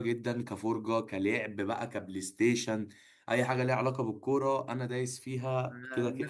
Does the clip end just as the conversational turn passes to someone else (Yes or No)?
Yes